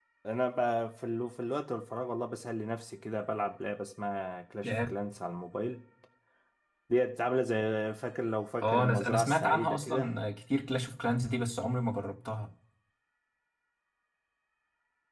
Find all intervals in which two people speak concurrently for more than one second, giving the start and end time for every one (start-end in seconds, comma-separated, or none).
8.6-10.1